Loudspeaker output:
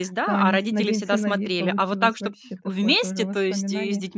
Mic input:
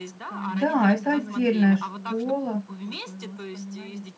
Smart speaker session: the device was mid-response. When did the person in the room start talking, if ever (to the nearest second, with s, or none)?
0 s